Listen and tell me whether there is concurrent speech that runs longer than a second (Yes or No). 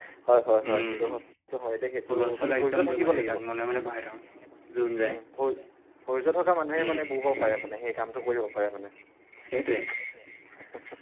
Yes